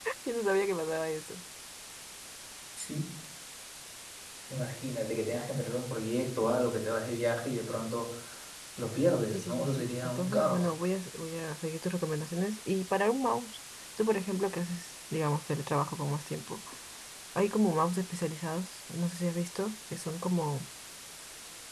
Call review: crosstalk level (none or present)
present